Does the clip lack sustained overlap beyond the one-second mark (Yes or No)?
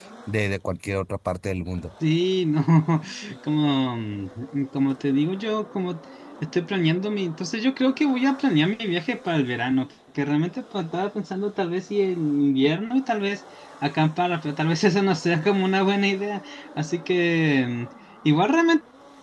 Yes